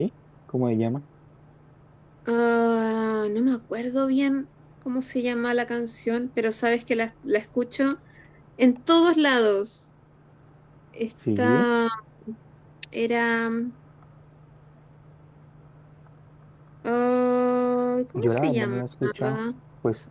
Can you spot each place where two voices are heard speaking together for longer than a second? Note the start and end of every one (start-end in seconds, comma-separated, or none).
18.2-19.4